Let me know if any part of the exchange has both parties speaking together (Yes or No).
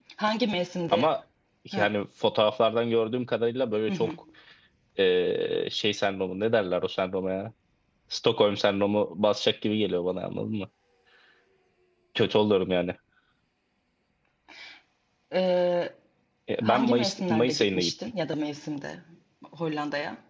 Yes